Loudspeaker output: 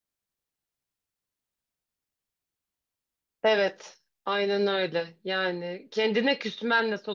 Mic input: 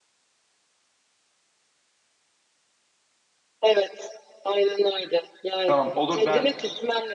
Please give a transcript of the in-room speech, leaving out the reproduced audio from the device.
Tamam olur ben

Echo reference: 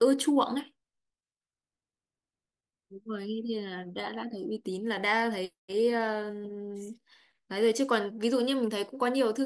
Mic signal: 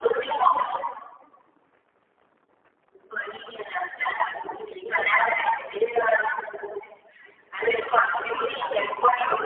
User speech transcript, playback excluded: none

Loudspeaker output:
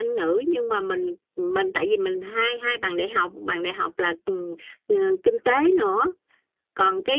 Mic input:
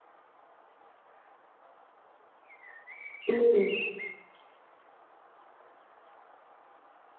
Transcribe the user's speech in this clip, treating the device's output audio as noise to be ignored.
ừ.

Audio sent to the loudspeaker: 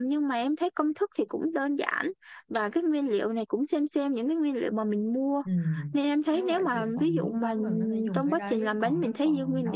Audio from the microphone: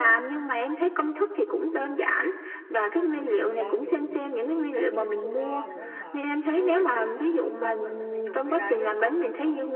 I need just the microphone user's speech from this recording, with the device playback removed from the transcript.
bột mì đa dụng rồi baking soda nữa em ạ

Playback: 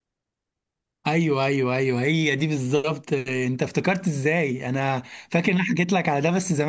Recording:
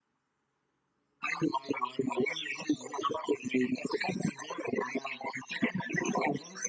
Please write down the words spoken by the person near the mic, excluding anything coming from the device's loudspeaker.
none

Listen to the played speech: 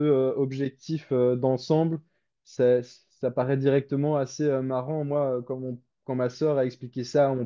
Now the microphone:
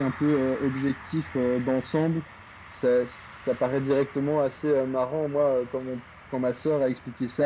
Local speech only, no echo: none

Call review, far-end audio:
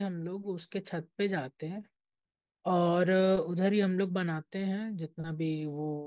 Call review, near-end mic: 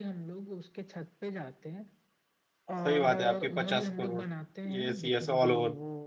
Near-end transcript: सही बात है आपकी पचास करोड़ यस यस ऑल ओवर

